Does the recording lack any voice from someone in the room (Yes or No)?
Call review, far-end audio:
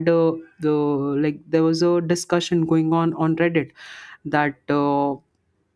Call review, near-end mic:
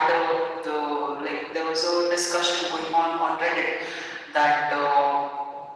Yes